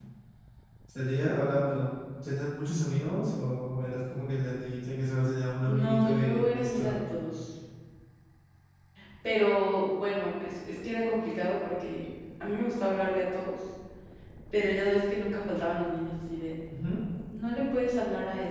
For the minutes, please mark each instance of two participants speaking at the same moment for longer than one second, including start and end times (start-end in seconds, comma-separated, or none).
5.6-7.0